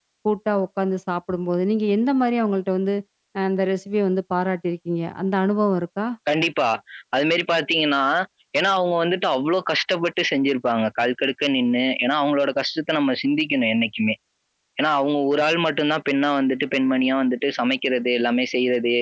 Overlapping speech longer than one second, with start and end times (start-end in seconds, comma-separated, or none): none